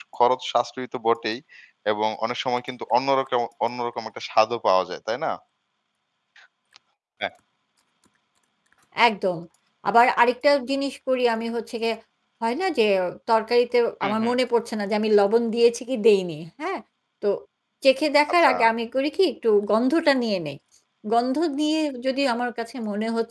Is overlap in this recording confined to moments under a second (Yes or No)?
Yes